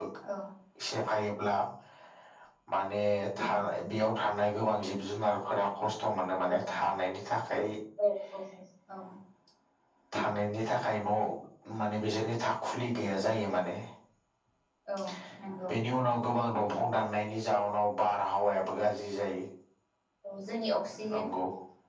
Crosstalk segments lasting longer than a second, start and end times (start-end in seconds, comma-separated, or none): none